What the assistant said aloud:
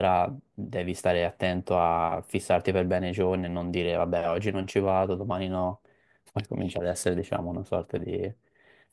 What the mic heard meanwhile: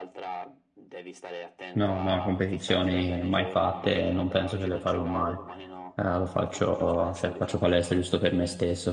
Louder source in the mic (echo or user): user